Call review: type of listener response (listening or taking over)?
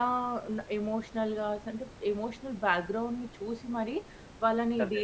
listening